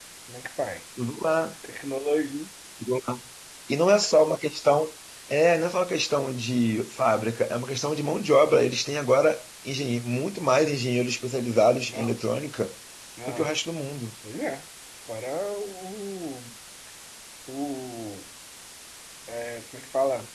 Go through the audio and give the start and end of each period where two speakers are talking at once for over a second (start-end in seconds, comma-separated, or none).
none